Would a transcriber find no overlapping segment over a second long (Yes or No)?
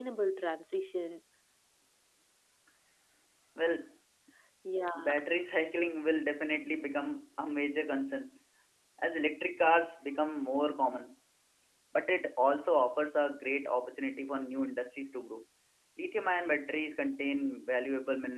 Yes